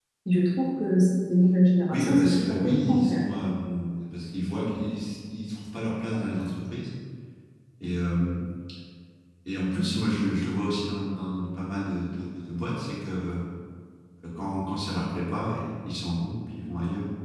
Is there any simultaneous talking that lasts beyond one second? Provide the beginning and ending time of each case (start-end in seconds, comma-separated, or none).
1.9-3.2